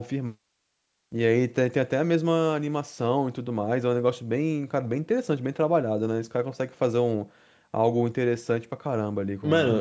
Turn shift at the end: Yes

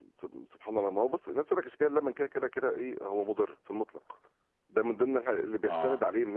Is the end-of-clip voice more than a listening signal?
No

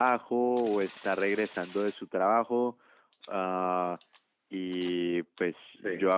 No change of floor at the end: Yes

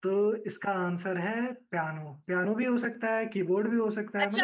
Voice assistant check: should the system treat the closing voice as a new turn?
Yes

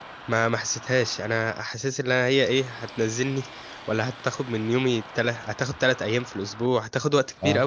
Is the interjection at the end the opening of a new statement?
No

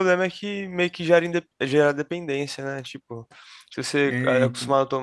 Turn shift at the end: No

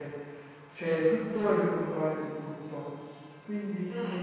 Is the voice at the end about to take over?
No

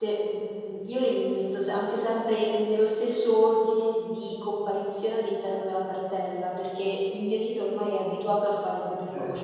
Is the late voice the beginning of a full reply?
Yes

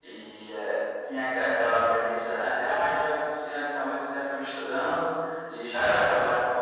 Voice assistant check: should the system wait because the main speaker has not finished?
Yes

